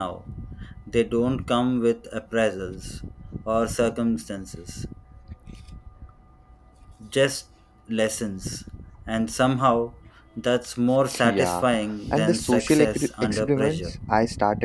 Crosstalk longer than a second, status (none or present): present